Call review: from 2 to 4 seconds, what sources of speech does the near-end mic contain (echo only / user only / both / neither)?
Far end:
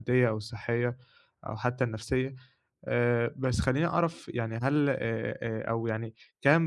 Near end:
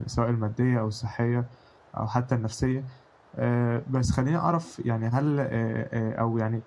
echo only